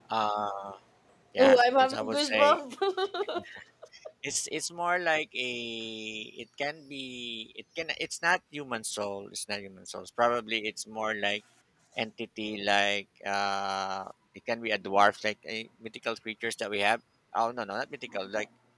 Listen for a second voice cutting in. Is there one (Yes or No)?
Yes